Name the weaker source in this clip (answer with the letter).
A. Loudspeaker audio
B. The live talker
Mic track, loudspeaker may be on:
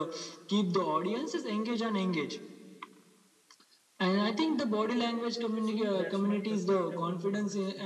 B